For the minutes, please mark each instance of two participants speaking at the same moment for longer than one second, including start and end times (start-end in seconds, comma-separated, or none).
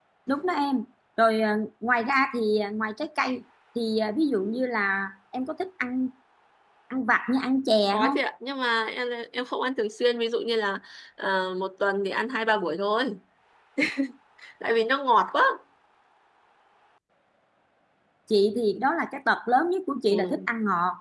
none